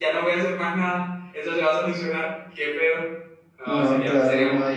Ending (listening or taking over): taking over